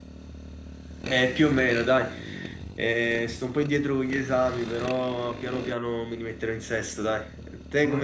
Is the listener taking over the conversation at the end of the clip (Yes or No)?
No